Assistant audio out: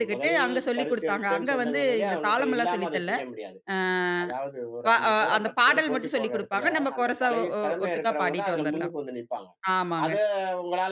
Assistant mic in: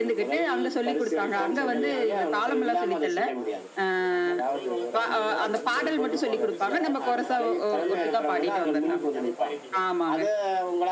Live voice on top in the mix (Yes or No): No